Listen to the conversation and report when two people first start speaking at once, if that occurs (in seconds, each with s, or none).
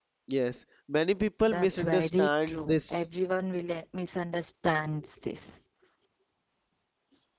1.5 s